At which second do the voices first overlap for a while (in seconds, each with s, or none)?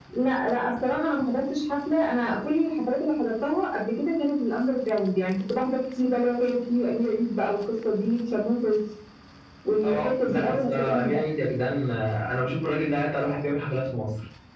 9.8 s